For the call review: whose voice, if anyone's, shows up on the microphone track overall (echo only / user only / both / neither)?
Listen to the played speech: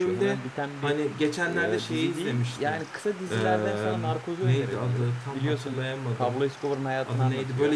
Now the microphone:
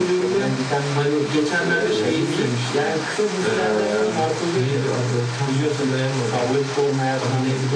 both